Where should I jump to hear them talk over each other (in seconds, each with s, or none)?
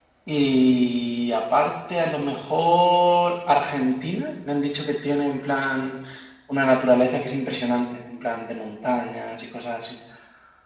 none